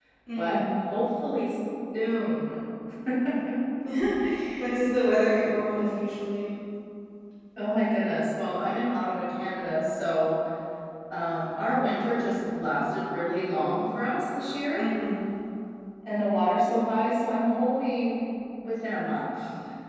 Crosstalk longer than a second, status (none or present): none